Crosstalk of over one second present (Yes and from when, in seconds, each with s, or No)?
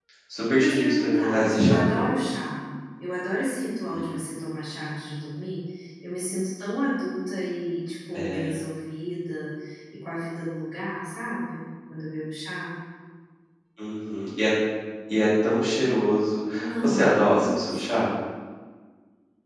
Yes, from 0.5 s